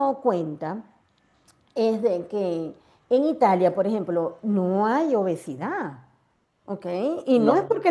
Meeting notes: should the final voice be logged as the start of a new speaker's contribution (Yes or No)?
No